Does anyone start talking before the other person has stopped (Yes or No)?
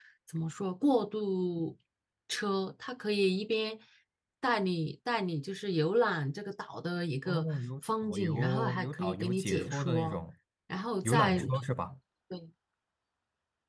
Yes